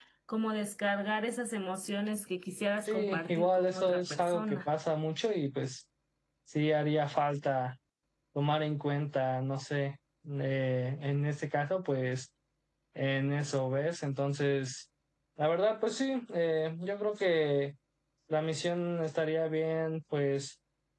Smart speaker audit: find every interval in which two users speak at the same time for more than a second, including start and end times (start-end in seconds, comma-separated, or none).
2.9-4.6